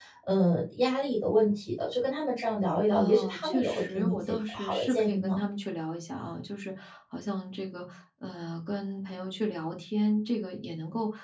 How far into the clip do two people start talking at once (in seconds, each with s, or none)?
2.9 s